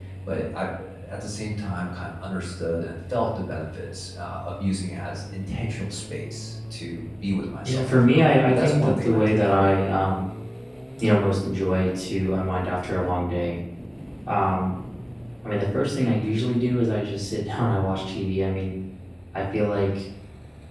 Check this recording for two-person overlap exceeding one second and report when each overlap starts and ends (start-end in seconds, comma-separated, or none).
7.6-9.9